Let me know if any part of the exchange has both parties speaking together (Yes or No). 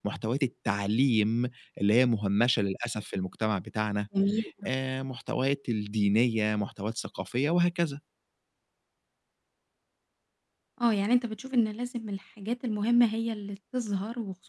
No